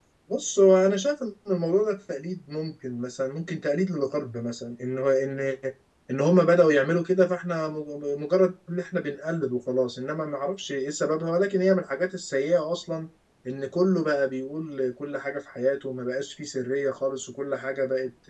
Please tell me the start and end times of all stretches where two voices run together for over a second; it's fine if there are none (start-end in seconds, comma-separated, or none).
none